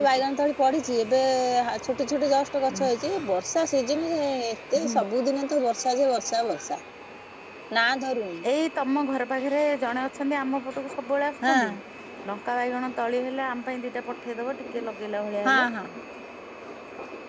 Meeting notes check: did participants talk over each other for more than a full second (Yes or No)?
No